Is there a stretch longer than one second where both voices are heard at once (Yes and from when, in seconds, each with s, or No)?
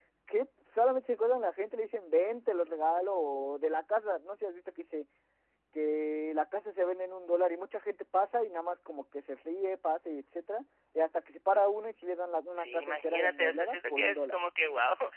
Yes, from 12.5 s